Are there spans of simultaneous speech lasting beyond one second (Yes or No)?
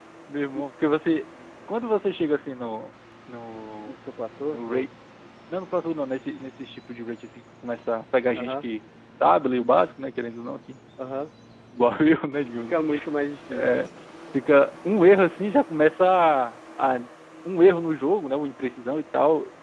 No